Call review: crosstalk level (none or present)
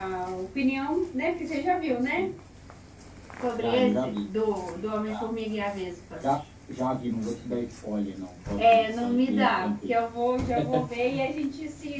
present